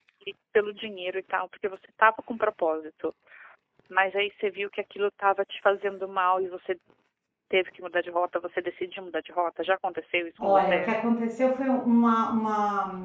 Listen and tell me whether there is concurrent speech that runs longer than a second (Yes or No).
No